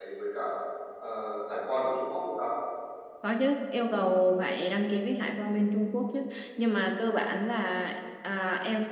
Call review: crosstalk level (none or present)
none